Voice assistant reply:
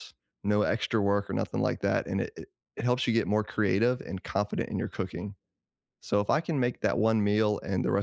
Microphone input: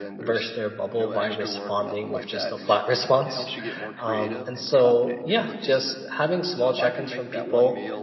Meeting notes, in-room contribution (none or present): present